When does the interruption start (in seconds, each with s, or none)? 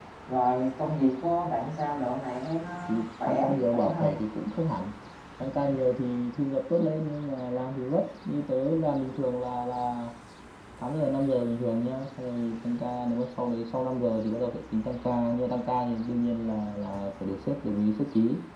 2.9 s